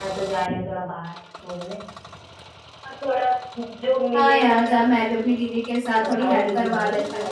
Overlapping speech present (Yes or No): Yes